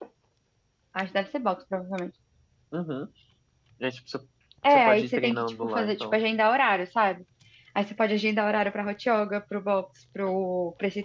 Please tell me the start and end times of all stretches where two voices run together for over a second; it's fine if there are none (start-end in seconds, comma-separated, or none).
4.7-6.2